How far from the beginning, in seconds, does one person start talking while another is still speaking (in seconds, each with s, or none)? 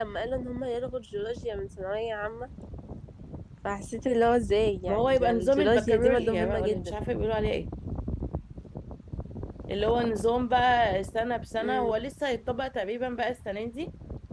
4.9 s